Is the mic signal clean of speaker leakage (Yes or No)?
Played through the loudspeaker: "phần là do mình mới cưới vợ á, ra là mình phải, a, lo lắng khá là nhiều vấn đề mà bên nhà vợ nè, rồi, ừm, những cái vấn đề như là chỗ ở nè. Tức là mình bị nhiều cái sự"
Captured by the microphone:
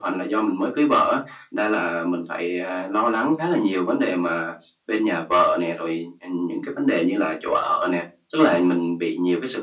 No